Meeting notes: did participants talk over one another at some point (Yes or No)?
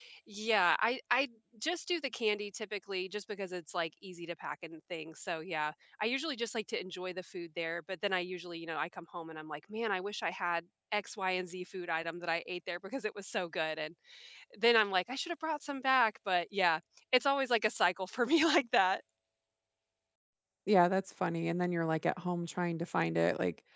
No